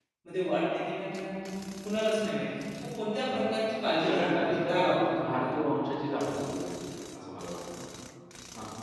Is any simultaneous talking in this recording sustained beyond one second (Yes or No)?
Yes